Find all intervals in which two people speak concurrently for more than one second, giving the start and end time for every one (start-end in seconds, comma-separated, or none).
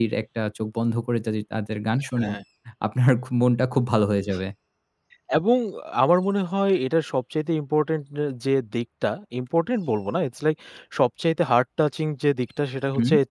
none